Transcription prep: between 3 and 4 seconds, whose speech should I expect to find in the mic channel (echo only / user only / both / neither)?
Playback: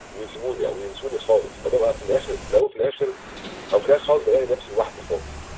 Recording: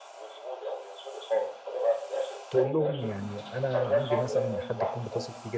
both